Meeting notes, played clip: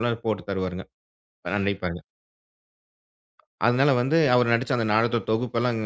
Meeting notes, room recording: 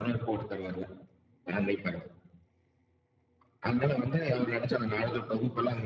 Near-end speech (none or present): none